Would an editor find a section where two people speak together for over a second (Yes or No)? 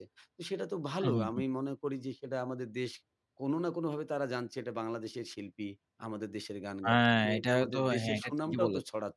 Yes